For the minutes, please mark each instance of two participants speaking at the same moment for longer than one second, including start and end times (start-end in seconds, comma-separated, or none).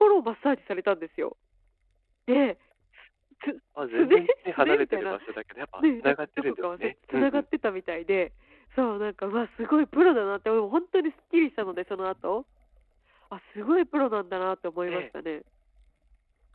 3.8-5.2, 6.0-7.4